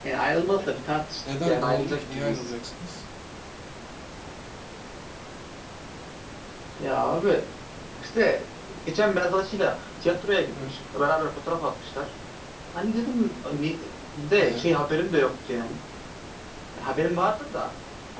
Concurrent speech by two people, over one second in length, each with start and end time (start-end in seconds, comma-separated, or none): 1.2-2.5